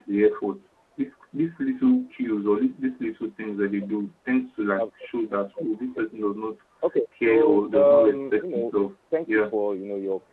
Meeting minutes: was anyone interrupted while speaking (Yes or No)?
Yes